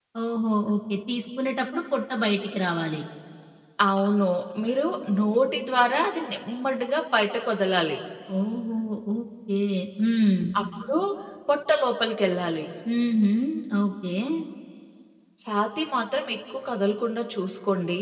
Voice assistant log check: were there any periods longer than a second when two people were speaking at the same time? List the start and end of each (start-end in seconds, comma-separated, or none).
none